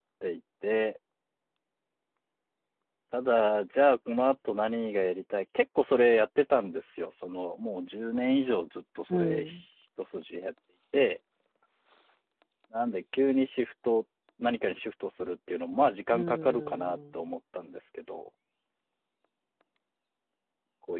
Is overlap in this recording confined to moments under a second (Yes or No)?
No